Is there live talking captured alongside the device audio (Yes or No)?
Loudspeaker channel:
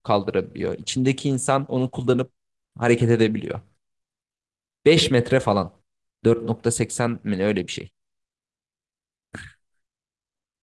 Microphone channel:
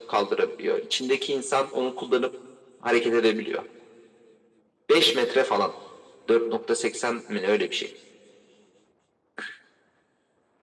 No